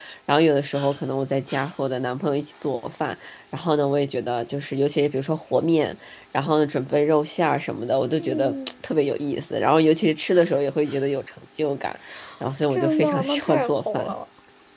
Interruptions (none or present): present